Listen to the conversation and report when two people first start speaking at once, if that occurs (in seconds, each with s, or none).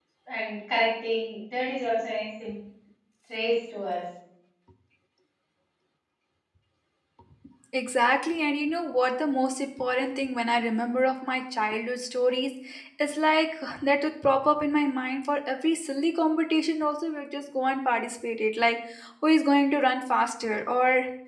none